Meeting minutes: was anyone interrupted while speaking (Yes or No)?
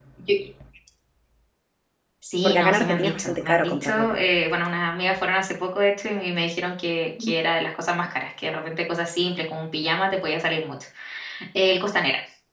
Yes